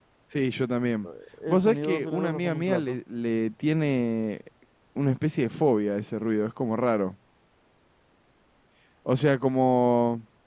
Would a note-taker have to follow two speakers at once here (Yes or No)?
Yes